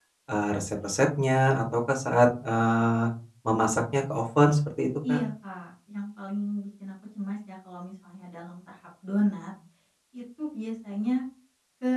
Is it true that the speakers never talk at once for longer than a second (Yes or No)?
Yes